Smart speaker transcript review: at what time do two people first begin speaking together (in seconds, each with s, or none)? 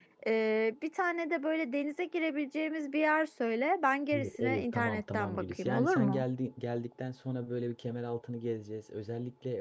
4.1 s